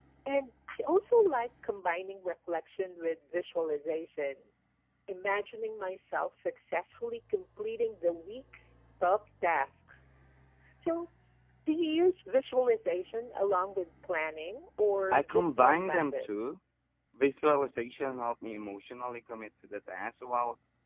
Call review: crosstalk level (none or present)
present